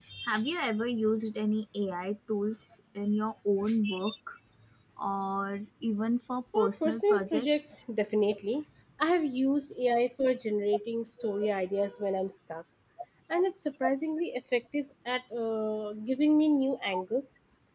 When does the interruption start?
6.5 s

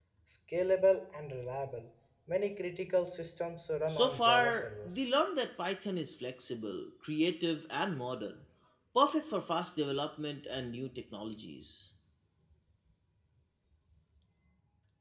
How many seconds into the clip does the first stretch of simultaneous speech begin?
3.9 s

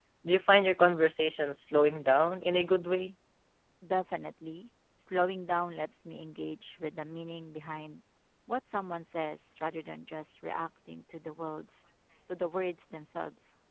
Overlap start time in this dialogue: none

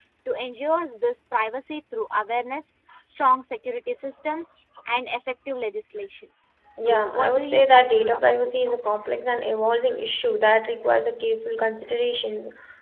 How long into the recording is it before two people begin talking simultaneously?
6.8 s

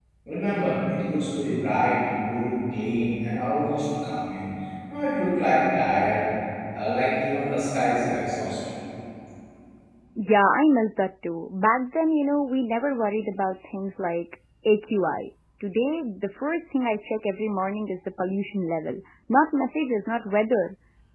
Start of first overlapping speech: none

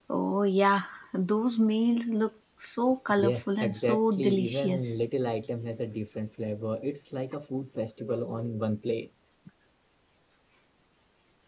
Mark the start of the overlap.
3.1 s

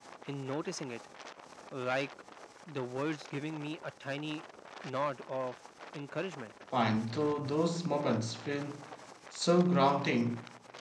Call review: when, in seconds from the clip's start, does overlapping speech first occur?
none

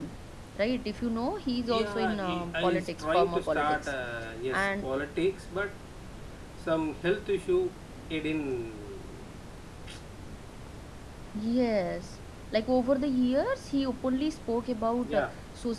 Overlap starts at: 1.7 s

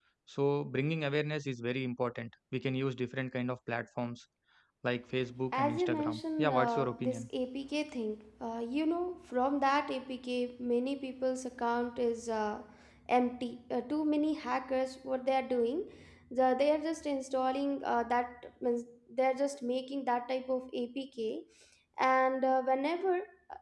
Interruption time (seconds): 5.5 s

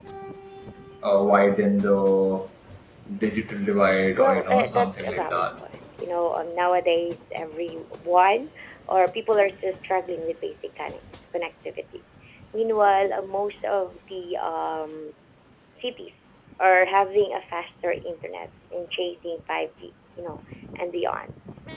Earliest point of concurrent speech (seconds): 4.2 s

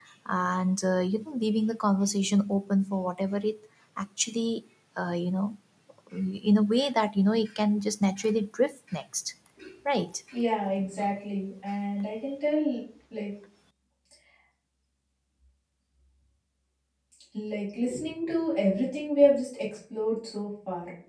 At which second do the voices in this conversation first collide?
none

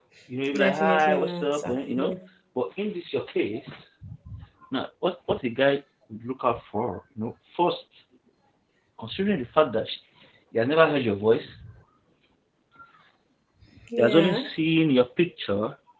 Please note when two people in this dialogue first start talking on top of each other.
0.5 s

